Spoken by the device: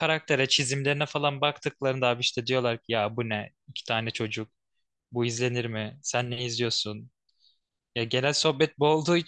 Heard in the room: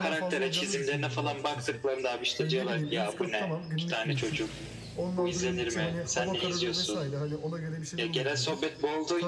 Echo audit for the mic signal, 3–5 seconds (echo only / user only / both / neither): both